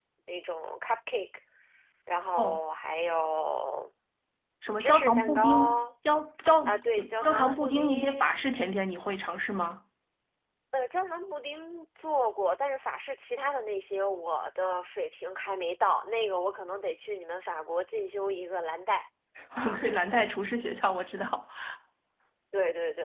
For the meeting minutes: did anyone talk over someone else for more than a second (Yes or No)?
Yes